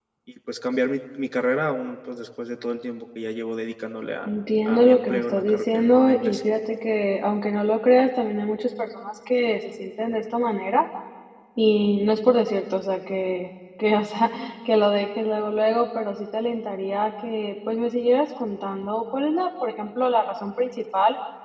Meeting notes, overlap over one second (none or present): present